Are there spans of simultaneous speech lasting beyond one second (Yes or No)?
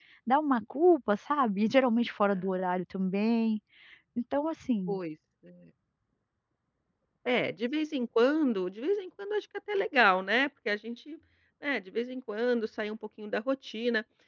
No